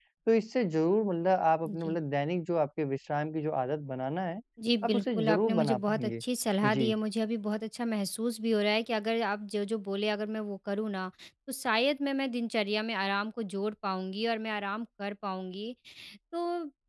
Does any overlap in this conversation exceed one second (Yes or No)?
Yes